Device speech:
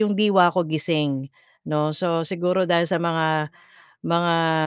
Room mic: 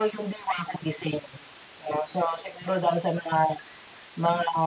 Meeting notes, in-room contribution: none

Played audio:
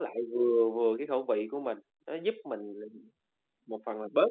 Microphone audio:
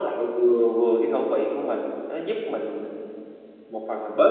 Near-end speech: none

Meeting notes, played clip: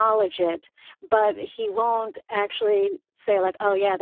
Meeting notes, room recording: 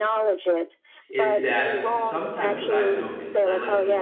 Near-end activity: present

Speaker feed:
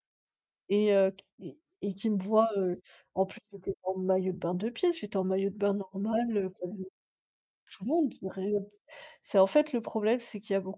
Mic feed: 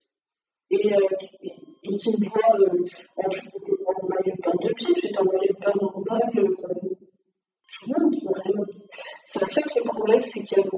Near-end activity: none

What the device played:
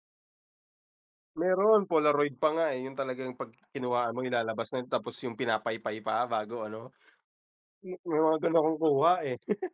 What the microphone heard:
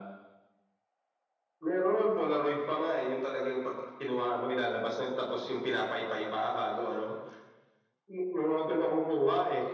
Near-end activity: none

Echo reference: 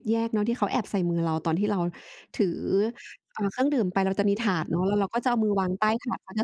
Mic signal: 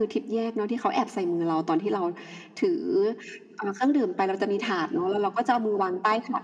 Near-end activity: none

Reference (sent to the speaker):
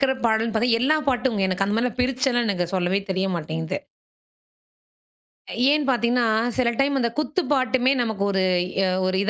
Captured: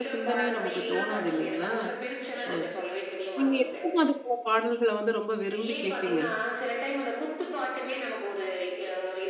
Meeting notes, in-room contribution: present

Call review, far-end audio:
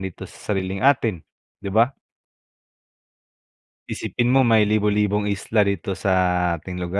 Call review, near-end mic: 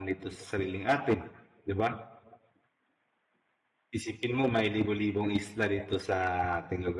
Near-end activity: none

